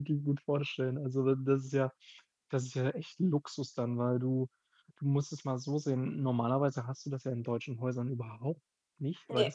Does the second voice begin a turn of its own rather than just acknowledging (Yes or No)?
No